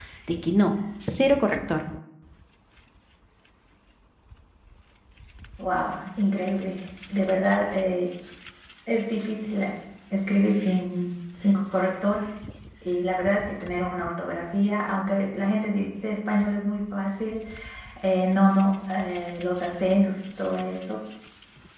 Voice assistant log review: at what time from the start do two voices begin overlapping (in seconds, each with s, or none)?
none